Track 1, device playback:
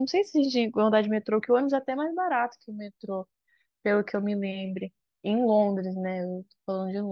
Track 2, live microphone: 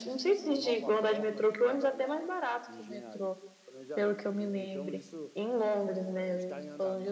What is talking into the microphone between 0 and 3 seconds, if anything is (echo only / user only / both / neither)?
both